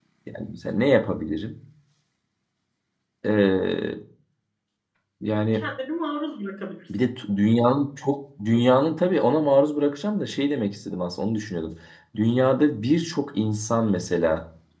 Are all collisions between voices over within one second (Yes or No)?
Yes